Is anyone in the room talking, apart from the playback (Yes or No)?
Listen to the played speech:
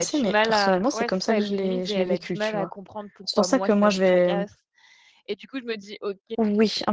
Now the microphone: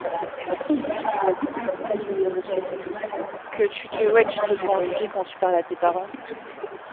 Yes